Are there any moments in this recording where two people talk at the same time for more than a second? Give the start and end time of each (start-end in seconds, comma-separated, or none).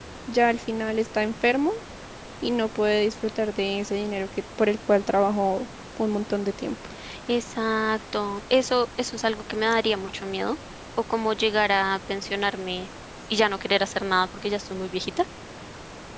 none